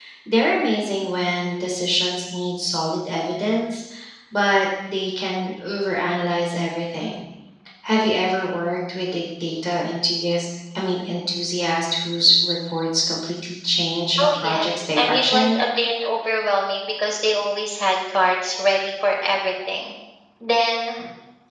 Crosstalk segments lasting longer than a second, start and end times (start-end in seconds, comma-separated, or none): 14.2-15.6